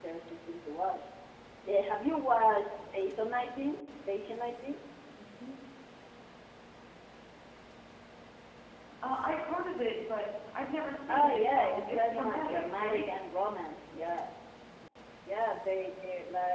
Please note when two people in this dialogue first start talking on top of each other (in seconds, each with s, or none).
11.1 s